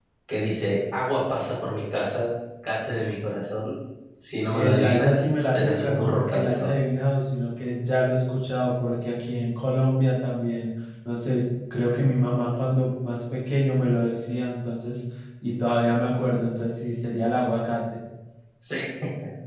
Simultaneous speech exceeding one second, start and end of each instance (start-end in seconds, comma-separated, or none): 4.5-6.7